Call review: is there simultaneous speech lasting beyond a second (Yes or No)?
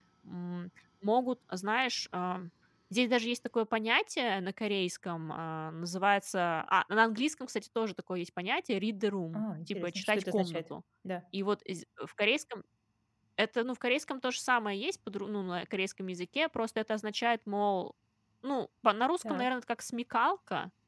Yes